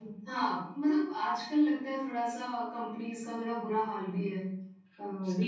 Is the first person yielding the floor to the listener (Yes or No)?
Yes